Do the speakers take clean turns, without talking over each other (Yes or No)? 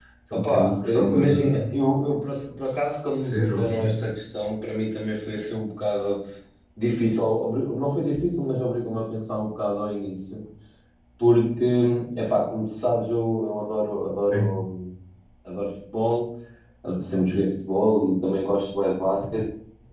No